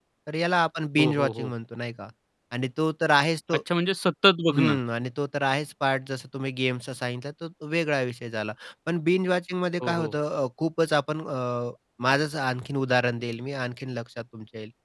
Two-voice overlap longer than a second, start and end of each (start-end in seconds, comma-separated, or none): none